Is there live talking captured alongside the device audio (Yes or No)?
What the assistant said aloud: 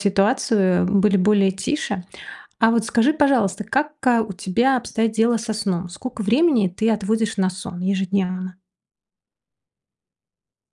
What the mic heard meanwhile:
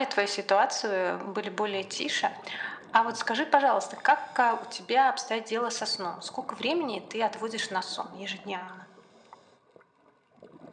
No